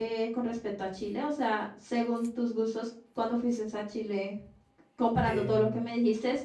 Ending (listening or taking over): listening